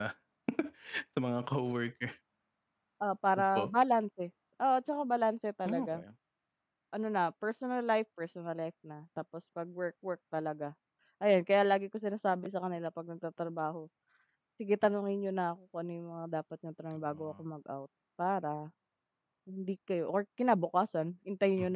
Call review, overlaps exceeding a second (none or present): none